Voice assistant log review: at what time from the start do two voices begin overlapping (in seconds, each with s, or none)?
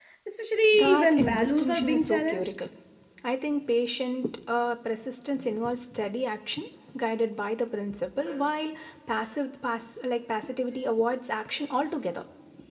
0.7 s